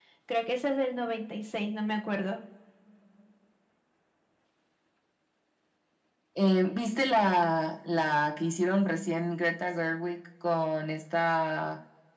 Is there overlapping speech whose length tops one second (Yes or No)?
No